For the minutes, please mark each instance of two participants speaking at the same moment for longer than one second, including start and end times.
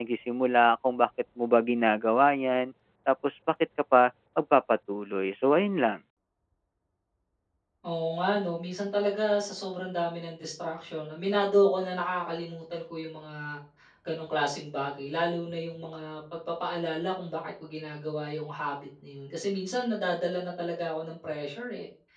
none

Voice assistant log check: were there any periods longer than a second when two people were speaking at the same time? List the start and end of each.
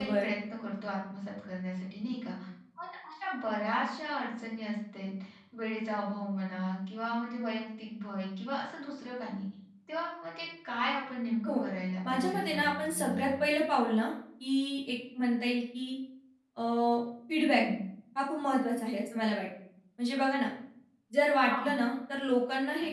12.0-13.3

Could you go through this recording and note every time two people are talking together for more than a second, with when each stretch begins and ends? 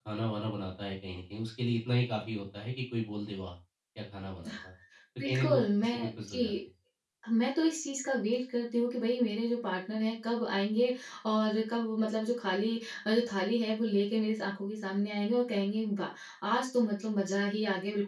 5.2-6.5

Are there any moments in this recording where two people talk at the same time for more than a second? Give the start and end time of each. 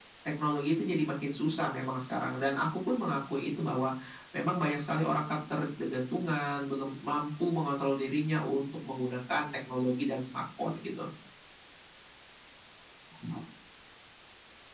none

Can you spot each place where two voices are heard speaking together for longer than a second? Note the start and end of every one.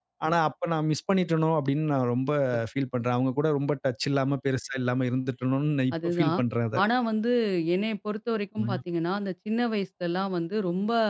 none

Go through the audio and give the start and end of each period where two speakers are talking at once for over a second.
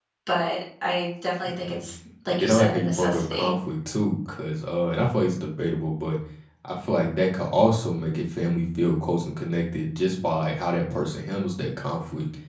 2.3-3.5

